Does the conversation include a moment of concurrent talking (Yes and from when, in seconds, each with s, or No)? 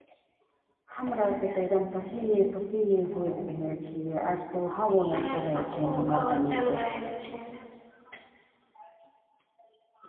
Yes, from 5.1 s